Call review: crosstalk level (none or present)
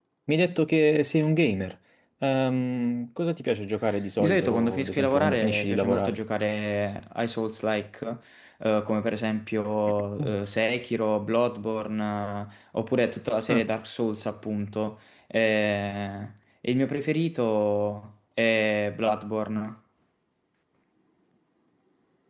present